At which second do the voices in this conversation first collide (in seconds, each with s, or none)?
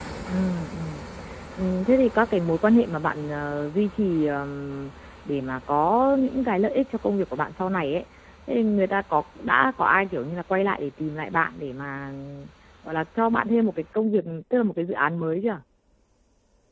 none